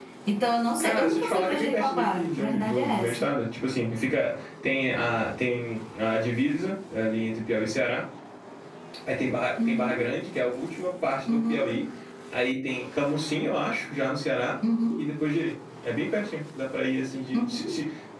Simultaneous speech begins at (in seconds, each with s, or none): 0.8 s